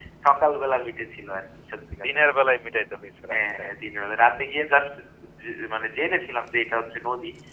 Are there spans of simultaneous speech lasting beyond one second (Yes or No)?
No